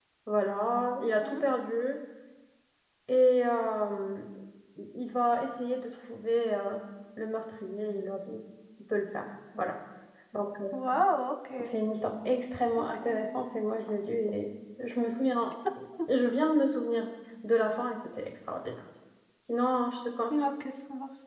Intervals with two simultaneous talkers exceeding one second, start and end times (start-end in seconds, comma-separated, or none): none